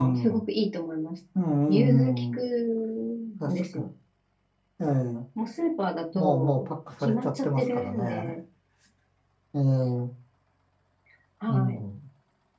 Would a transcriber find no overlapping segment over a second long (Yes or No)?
No